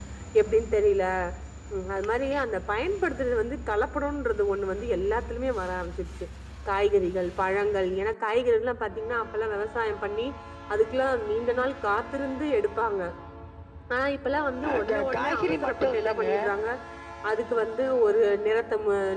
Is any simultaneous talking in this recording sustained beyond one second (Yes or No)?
Yes